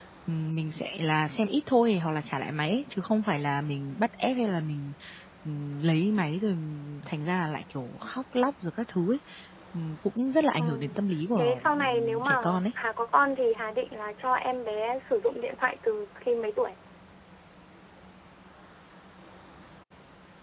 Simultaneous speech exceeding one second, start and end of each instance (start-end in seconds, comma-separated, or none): 11.4-12.6